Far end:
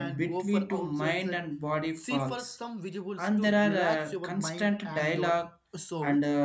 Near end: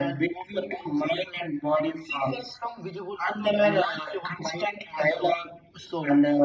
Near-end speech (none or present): none